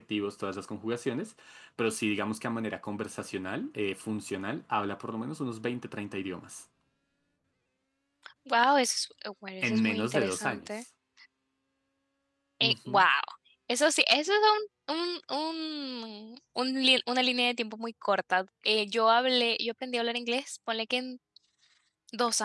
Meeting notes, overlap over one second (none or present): present